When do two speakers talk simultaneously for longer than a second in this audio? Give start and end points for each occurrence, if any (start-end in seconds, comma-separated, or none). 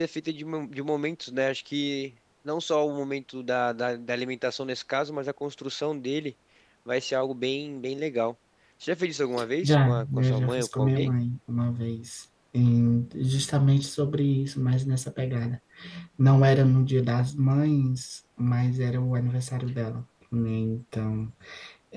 9.6-11.1